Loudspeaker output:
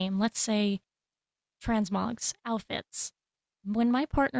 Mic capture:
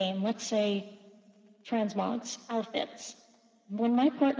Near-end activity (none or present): none